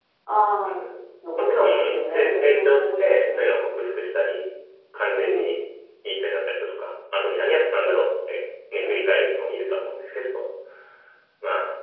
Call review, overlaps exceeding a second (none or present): present